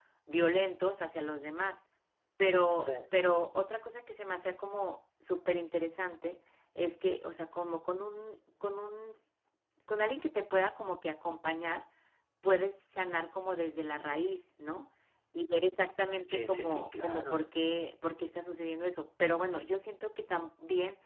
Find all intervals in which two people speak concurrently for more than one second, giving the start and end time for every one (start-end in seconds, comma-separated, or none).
16.2-17.4